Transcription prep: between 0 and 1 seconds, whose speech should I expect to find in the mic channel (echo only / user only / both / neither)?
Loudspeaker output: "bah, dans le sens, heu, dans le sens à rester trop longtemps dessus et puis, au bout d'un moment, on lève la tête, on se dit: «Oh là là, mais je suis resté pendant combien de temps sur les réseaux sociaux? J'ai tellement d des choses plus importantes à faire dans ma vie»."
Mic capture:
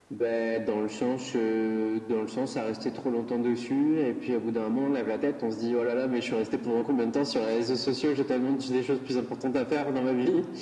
echo only